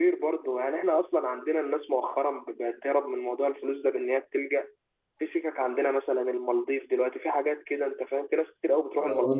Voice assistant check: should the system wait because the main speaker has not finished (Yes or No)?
No